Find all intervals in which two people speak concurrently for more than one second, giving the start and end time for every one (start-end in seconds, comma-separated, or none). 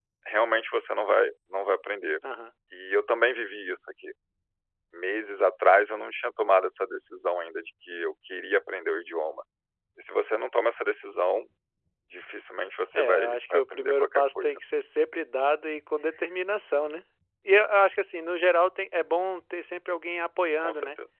12.9-14.6